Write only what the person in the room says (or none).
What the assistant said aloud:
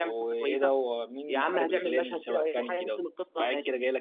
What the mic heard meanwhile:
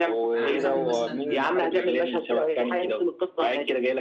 يعني عندك انمي مثلا